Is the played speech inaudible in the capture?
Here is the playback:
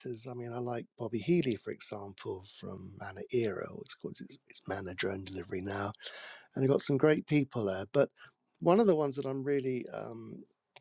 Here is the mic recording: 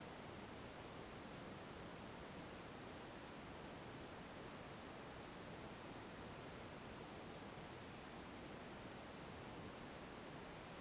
Yes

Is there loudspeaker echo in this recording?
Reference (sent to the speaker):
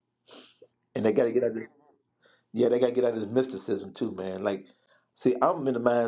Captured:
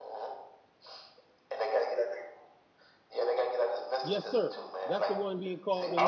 Yes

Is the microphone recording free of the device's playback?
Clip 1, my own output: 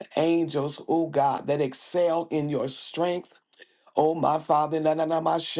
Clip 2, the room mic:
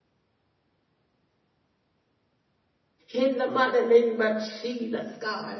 Yes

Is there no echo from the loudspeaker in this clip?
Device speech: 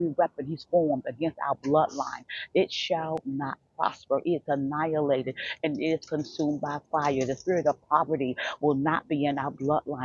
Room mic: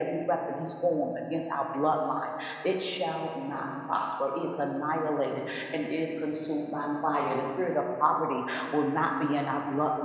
No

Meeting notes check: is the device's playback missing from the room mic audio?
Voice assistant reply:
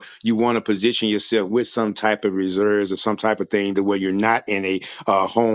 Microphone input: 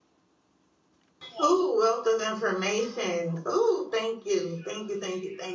Yes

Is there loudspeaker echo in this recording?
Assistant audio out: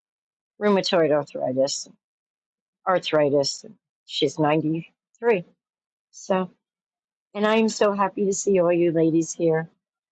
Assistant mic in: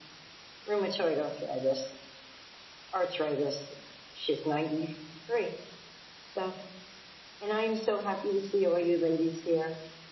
Yes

